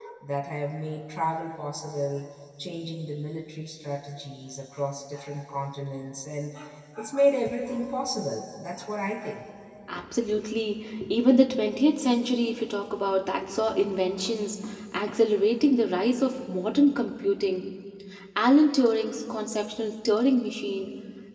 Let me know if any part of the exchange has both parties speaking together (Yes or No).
No